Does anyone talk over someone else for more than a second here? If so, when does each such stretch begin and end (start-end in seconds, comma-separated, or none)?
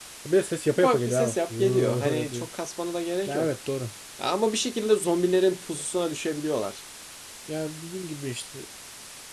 0.8-2.5